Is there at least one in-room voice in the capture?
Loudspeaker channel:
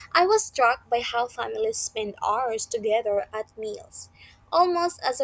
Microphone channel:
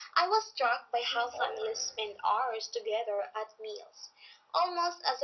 Yes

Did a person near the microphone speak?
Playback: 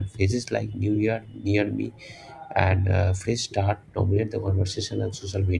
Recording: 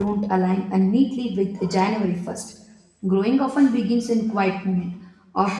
Yes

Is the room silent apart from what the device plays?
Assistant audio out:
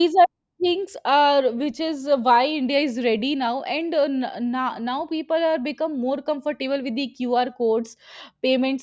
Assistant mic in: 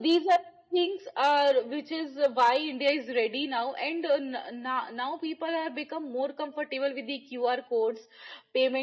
Yes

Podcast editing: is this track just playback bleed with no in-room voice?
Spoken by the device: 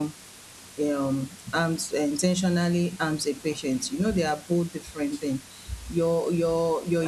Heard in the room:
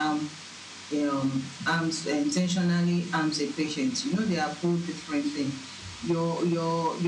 Yes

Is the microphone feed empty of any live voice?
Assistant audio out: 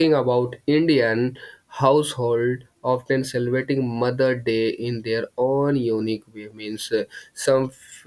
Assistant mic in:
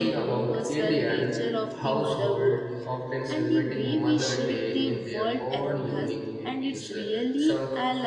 No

